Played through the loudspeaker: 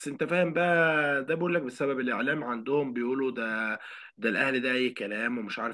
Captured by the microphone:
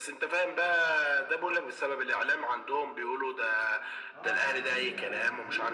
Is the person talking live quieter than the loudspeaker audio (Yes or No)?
Yes